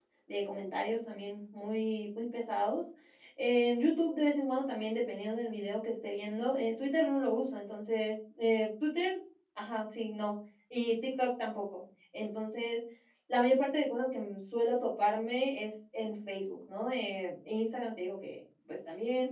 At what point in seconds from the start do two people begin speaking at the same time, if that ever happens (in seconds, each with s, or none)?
none